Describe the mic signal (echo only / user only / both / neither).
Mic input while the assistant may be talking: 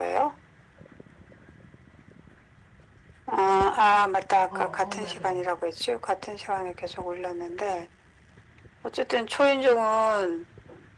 both